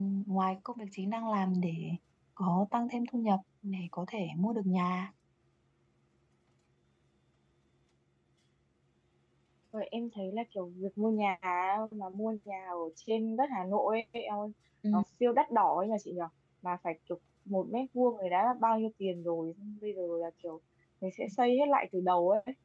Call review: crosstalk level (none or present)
none